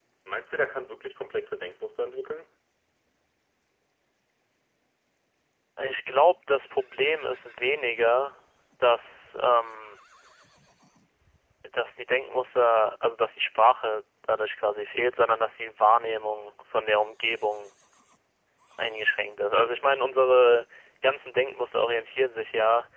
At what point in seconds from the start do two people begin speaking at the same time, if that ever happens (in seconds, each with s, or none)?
none